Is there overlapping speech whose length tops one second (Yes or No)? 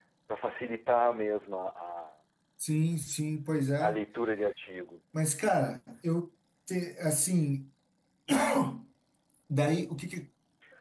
No